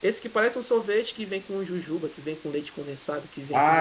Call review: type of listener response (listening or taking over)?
taking over